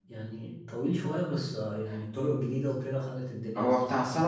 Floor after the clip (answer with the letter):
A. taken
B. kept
A